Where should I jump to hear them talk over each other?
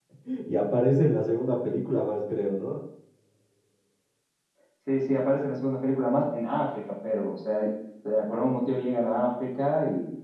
none

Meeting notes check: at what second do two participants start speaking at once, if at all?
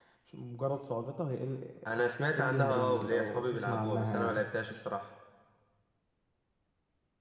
2.4 s

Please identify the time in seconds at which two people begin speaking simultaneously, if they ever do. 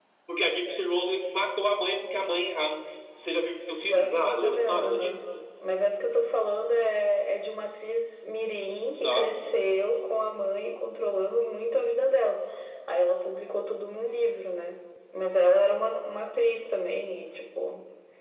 3.8 s

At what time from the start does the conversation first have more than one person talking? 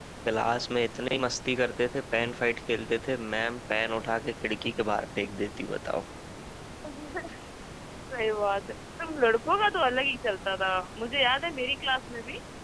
none

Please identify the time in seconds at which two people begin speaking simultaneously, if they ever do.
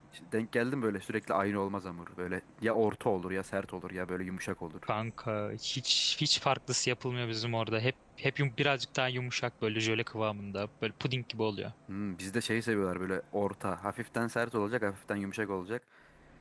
none

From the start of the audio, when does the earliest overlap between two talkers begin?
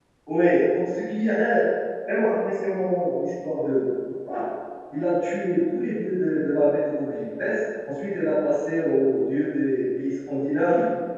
none

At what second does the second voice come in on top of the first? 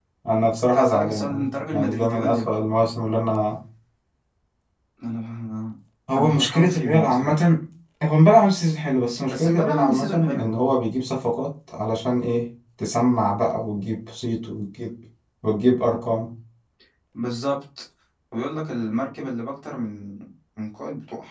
0.6 s

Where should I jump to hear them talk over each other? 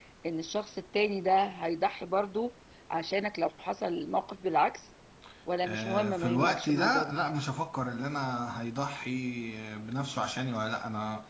5.6 s

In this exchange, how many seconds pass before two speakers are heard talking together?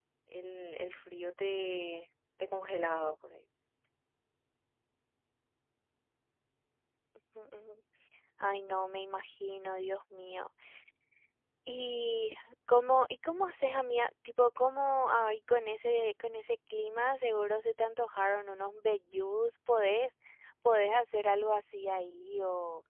none

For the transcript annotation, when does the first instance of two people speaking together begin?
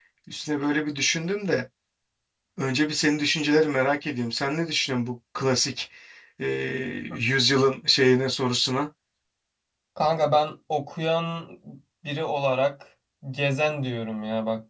none

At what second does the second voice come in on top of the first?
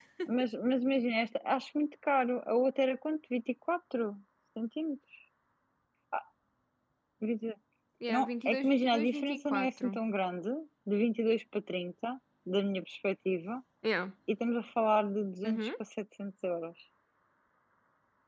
8.1 s

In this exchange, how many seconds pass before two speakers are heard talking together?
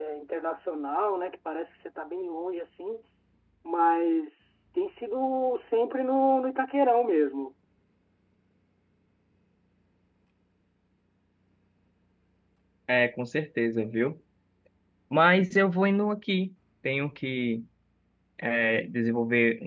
none

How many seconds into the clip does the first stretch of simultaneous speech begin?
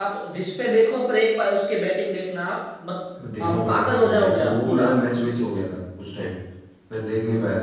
3.2 s

